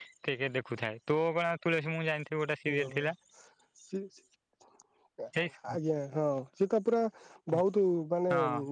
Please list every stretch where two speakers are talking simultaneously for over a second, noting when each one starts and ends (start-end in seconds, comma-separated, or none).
none